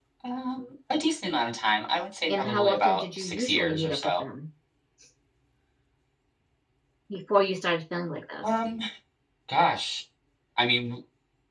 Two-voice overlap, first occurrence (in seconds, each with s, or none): 2.3 s